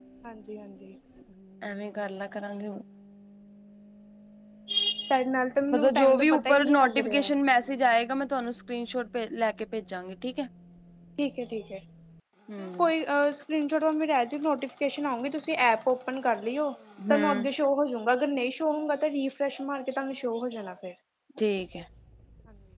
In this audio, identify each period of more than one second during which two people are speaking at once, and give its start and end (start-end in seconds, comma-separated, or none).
5.7-7.3